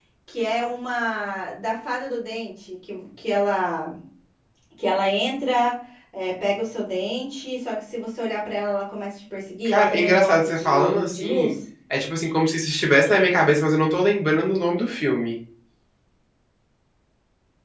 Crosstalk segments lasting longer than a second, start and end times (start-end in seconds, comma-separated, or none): 9.7-11.6